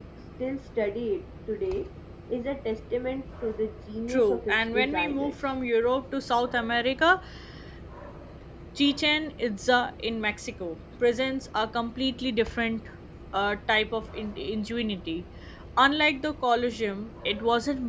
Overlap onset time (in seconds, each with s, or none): 4.1 s